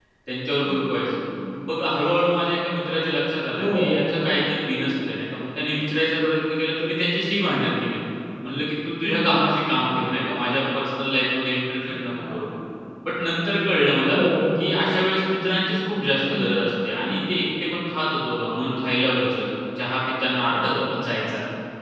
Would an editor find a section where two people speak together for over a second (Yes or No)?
No